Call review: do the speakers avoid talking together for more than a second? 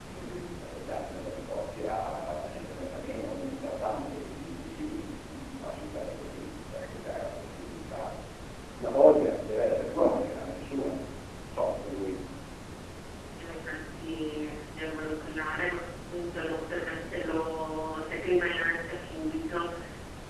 Yes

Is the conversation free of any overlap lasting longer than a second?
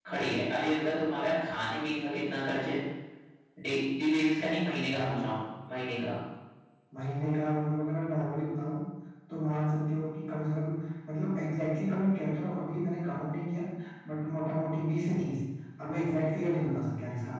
Yes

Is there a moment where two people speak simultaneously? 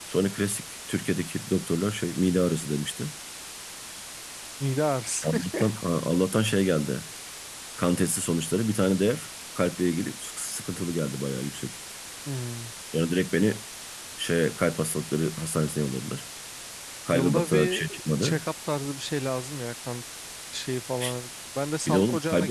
Yes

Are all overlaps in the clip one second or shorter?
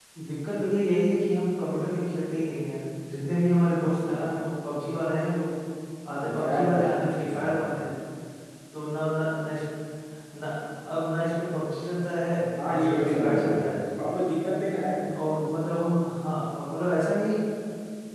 No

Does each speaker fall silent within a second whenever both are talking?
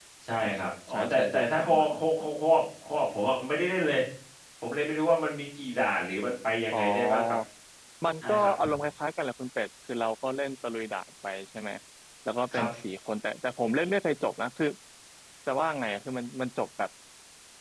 No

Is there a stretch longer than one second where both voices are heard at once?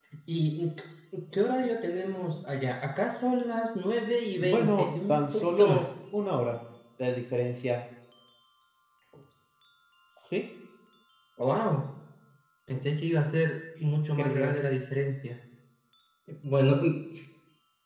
Yes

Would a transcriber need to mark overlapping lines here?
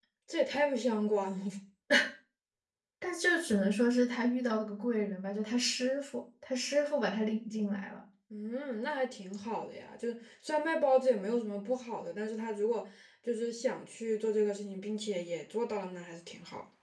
No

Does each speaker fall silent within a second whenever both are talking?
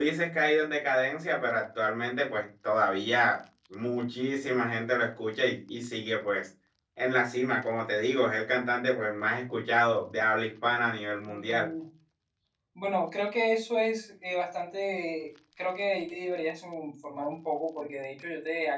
Yes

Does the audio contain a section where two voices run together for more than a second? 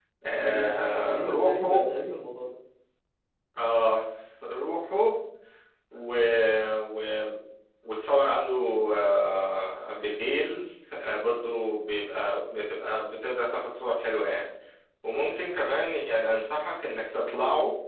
Yes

